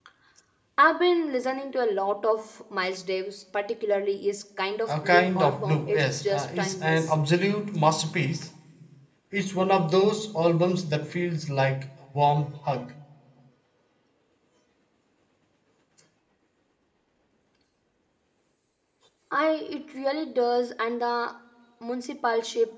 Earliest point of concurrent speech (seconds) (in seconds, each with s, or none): 4.9 s